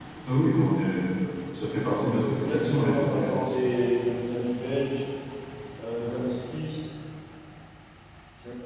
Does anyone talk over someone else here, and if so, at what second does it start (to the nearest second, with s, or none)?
2 s